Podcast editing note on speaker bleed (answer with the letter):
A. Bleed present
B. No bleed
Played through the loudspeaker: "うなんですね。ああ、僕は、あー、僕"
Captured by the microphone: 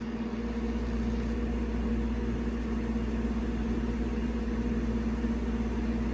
B